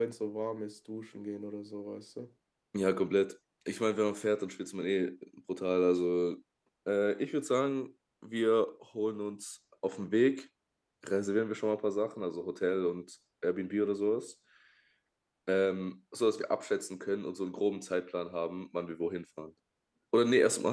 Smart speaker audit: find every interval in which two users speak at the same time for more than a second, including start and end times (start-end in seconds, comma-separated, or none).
none